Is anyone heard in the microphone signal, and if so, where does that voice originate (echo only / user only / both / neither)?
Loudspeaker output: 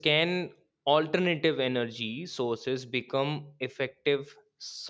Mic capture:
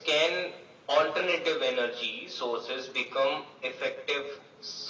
echo only